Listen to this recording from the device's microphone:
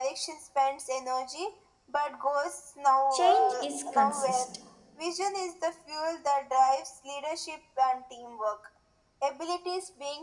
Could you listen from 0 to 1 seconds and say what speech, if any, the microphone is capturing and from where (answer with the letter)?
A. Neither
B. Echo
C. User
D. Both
B